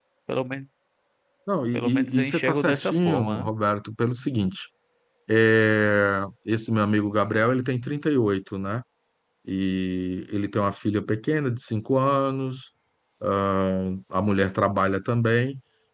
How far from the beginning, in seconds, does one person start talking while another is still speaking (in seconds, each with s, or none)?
1.7 s